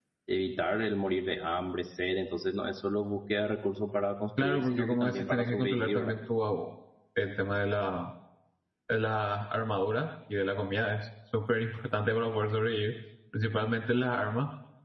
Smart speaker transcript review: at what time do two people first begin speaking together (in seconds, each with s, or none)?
4.4 s